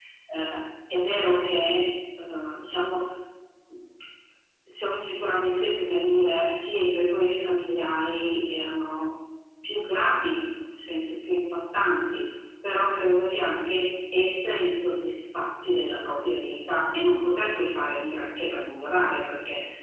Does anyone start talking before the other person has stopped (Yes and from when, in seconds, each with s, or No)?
No